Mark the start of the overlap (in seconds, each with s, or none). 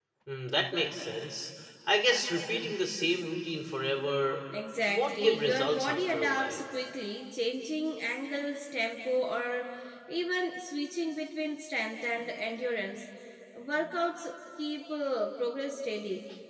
4.9 s